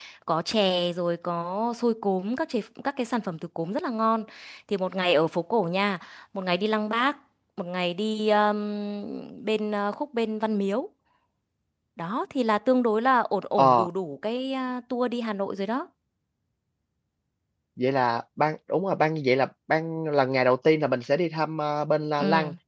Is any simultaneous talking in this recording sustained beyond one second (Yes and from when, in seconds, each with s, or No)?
No